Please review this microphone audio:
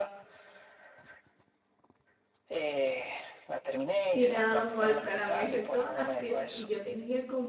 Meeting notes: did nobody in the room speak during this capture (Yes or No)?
No